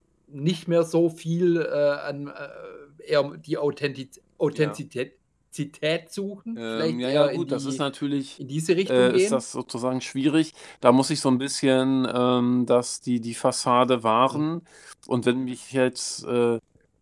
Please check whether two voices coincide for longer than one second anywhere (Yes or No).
Yes